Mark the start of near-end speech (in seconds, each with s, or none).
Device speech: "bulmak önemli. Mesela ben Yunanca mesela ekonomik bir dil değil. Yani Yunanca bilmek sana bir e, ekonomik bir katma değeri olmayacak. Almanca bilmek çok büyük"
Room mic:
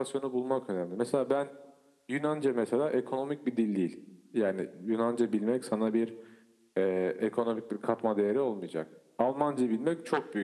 none